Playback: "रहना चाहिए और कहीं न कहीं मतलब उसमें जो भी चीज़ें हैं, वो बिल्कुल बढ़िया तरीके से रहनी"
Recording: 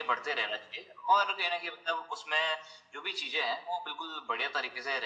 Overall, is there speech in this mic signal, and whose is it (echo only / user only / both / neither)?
echo only